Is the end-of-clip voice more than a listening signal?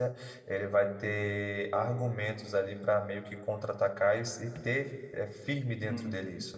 Yes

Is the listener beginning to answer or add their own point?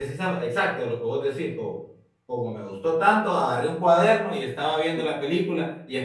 No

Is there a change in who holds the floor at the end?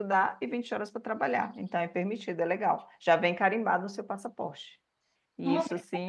Yes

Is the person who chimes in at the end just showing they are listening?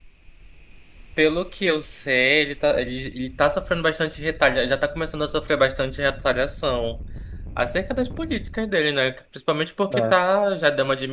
Yes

